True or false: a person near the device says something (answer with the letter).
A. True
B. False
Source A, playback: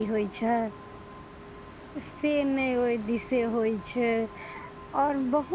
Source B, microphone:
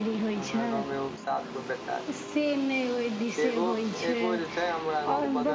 A